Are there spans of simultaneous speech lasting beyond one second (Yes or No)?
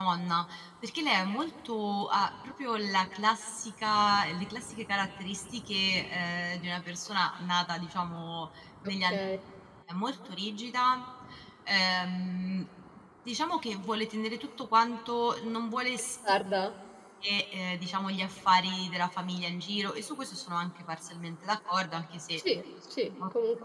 No